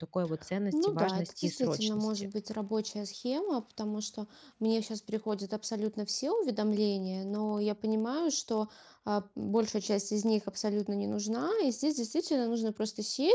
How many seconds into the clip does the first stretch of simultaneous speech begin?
0.7 s

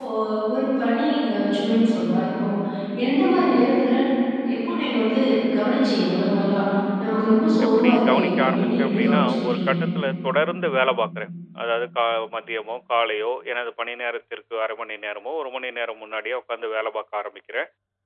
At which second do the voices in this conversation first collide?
7.6 s

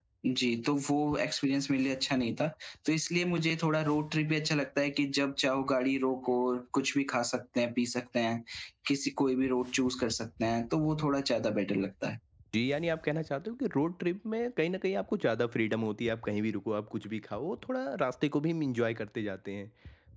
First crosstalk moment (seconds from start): none

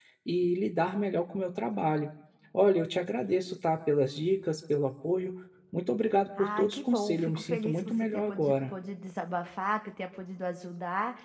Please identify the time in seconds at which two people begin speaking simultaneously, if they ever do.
6.4 s

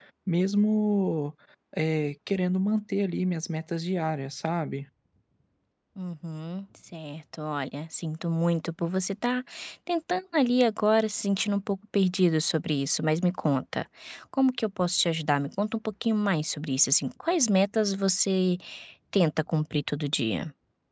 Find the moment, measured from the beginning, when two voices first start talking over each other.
none

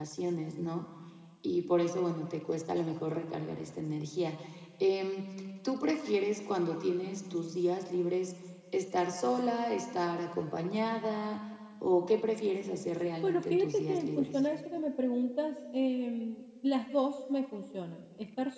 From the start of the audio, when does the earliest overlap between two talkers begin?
13.2 s

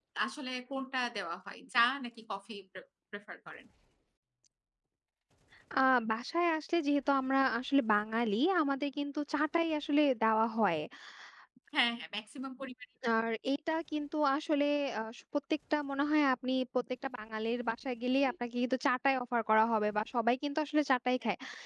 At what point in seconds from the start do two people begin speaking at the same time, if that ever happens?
none

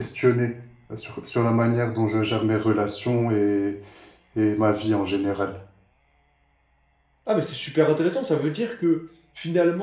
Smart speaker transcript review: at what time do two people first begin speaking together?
none

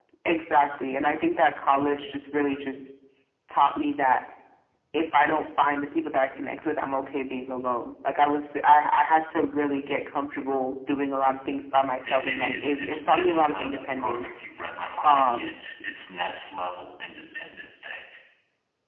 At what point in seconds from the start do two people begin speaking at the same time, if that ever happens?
12.0 s

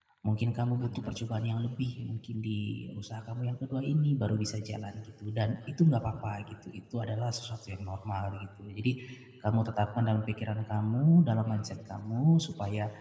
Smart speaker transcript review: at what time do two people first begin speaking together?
0.8 s

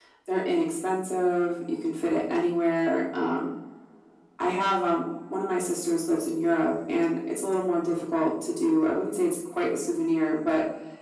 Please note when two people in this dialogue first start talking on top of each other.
none

